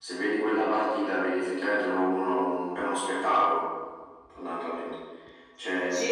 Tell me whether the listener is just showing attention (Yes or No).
No